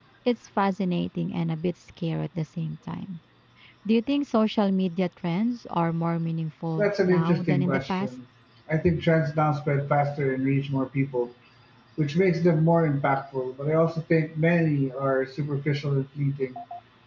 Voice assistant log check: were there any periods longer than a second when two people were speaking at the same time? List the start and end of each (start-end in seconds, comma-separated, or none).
6.8-8.2